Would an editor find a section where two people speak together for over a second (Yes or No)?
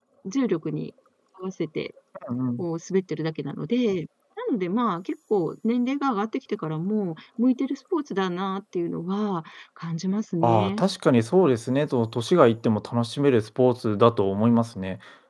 No